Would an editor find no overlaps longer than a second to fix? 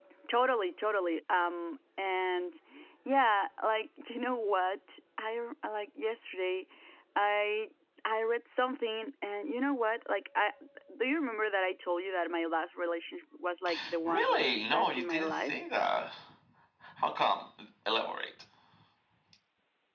No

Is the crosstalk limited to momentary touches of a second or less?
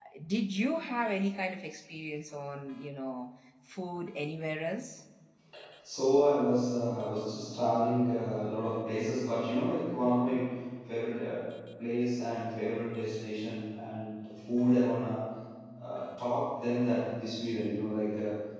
Yes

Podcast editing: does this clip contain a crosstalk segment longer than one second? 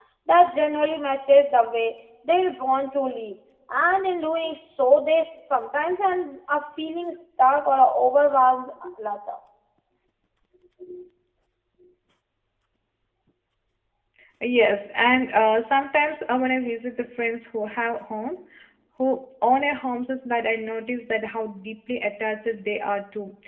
No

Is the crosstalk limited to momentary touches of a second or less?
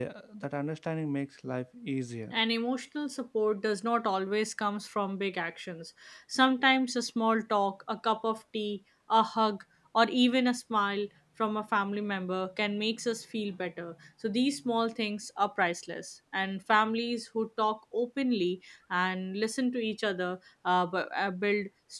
Yes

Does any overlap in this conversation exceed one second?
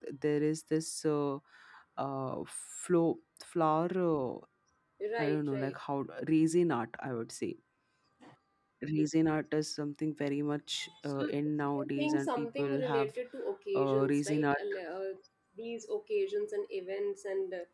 Yes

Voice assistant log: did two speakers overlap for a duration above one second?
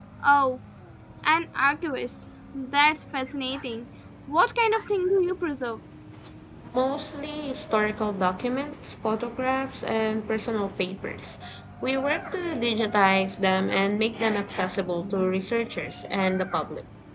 No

